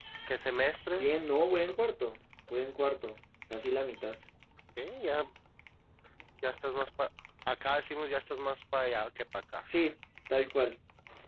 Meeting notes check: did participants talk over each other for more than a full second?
No

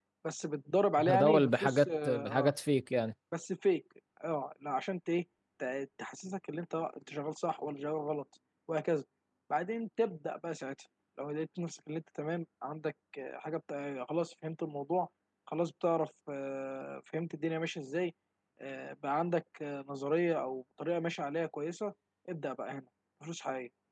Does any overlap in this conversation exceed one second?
Yes, from 1.1 s

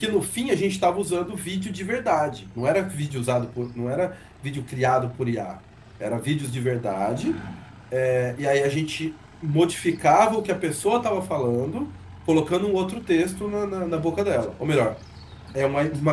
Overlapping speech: No

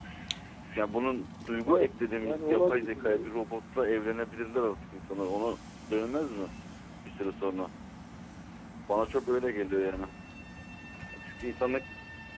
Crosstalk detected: Yes, from 1.6 s

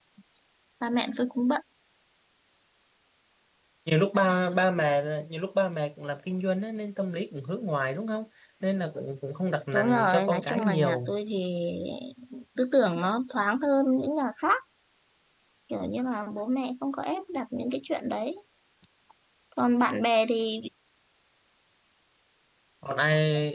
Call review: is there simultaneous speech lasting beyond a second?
Yes, from 9.7 s

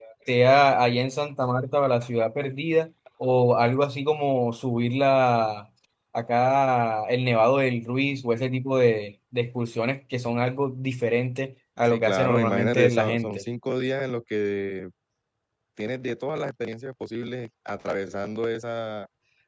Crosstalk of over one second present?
Yes, from 11.8 s

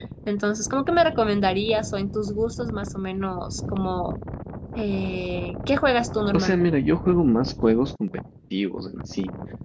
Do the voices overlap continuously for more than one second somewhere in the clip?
No

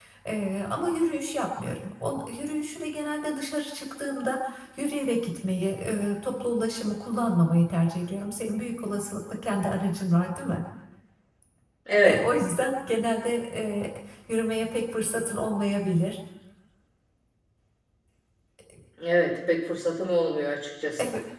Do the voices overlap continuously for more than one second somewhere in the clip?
No

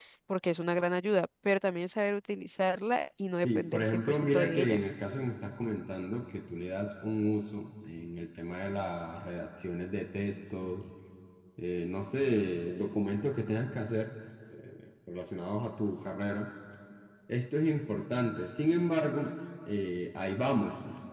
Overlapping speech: Yes, from 3.4 s

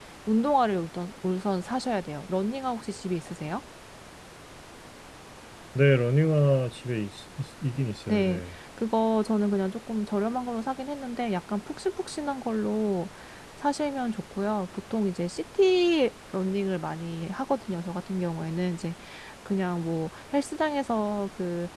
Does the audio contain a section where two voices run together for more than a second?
No

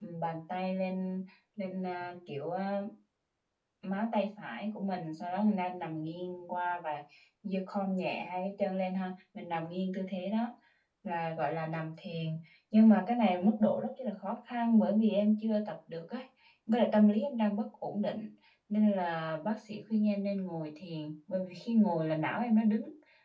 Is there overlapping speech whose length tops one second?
No

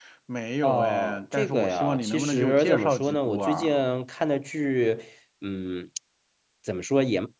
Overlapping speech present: Yes, from 0.6 s

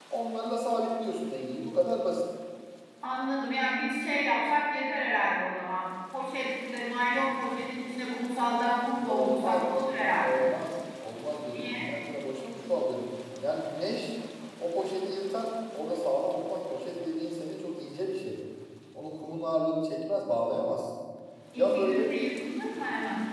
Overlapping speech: Yes, from 9.1 s

